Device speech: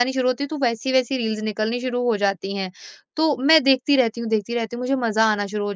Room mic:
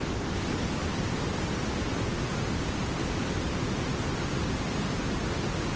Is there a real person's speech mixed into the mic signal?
No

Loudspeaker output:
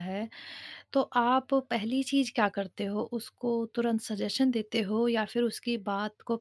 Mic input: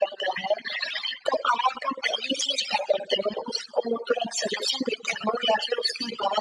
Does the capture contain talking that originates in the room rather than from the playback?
No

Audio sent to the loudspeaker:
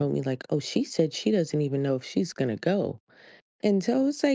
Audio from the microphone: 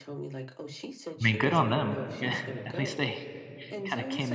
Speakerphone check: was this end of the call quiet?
No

